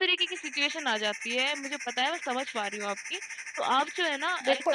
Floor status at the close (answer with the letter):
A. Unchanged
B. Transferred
B